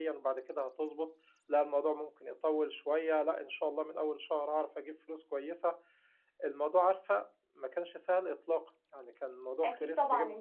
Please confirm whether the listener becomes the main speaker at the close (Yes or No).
Yes